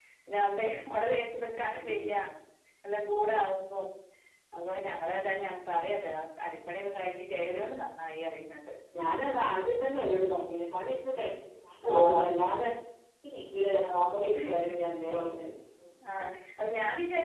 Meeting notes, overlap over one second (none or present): none